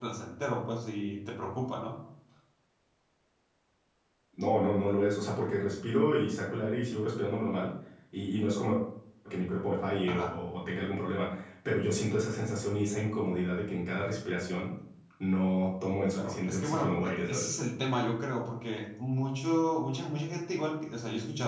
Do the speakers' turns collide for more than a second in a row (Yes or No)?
Yes